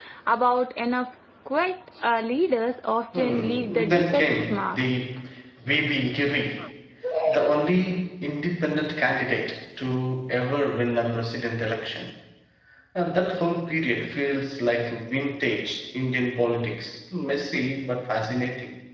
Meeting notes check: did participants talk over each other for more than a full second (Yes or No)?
Yes